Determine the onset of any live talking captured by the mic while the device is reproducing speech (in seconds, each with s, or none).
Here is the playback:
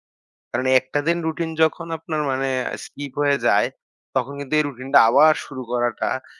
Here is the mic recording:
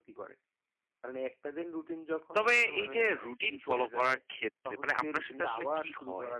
2.4 s